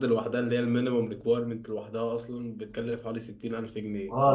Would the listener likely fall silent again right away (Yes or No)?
No